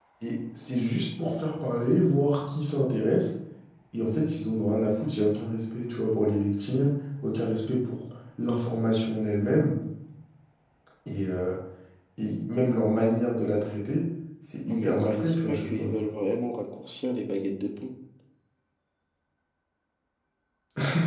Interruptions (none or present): present